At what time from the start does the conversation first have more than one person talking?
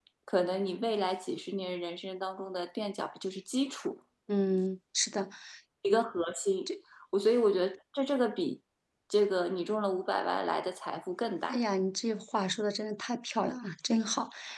none

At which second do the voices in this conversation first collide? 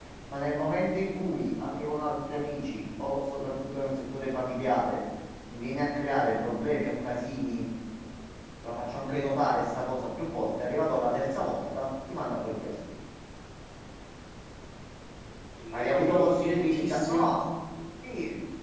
15.7 s

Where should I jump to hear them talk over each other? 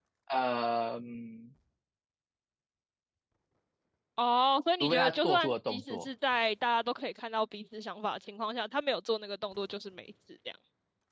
4.8 s

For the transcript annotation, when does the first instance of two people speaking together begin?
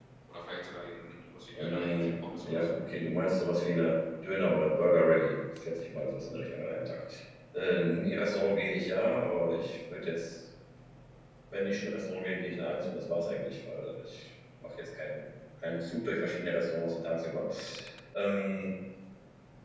1.5 s

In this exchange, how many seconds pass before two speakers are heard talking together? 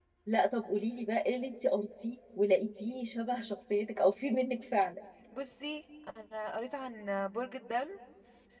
none

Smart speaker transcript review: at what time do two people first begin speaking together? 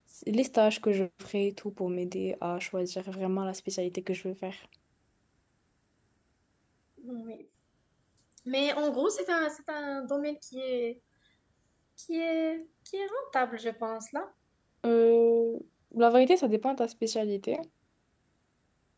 none

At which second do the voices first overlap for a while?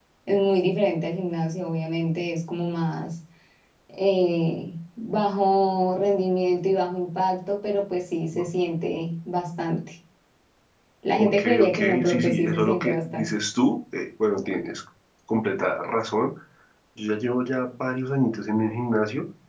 11.1 s

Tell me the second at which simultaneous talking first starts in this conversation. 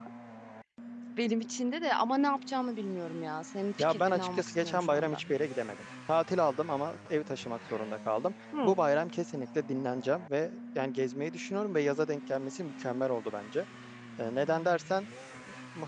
3.8 s

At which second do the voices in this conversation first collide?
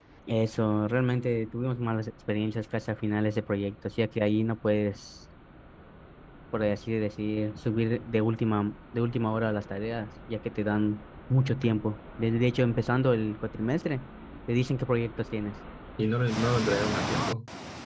none

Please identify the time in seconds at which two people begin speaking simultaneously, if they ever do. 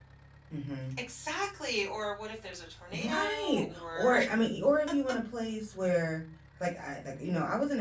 2.9 s

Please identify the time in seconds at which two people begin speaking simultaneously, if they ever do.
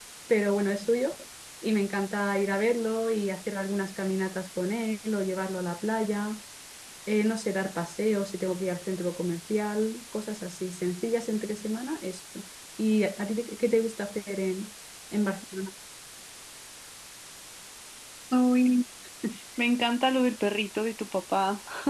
none

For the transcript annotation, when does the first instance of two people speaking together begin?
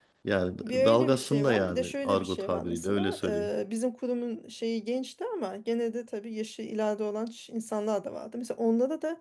0.6 s

